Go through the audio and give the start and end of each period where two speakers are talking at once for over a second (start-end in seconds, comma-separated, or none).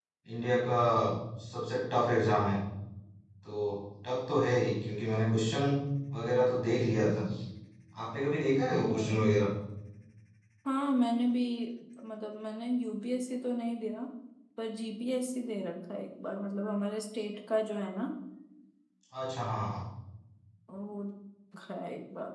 none